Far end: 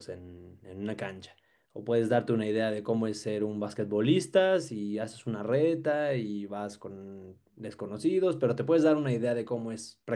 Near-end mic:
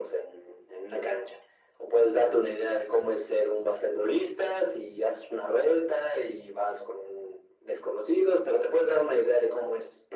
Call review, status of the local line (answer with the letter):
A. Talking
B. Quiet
B